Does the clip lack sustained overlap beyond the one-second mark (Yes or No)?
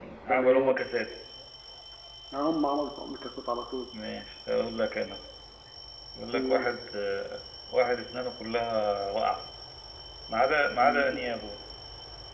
Yes